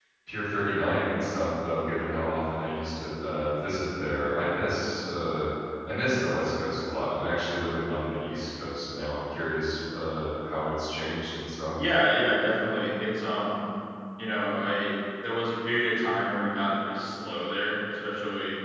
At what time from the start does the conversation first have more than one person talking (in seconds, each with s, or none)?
none